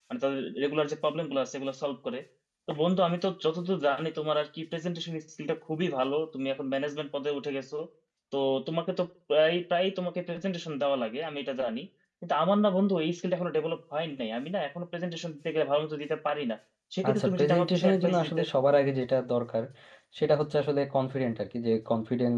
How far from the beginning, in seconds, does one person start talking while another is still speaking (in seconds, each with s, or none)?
17.1 s